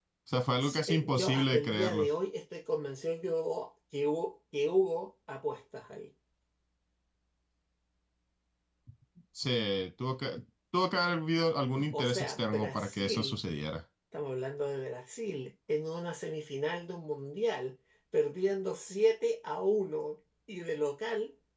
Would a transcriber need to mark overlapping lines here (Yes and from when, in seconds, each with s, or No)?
Yes, from 0.6 s